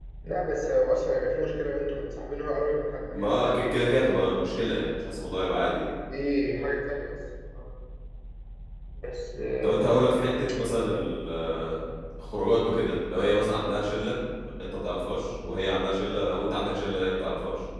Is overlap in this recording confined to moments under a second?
No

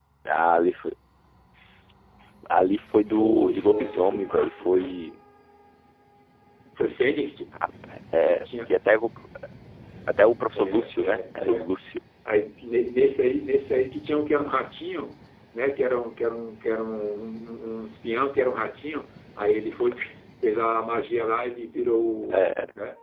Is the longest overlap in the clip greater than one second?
Yes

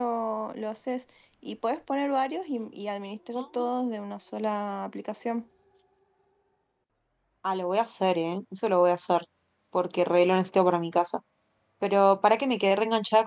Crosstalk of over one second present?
No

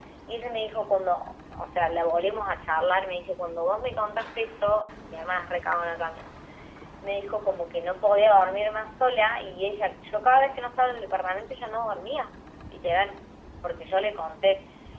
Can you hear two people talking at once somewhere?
No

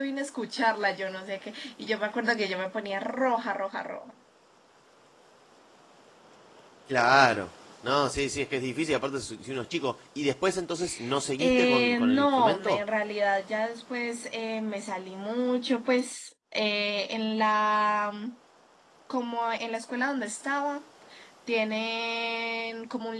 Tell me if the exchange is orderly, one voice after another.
No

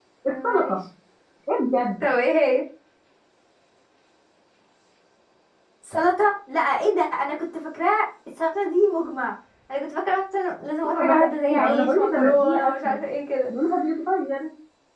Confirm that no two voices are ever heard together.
No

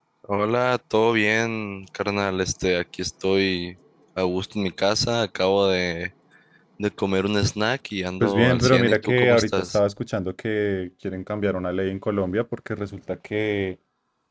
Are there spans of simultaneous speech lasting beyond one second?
Yes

